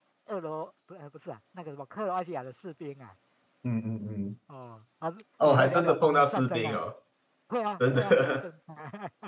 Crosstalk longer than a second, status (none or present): present